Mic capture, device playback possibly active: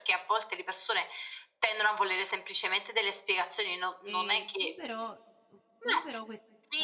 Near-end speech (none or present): present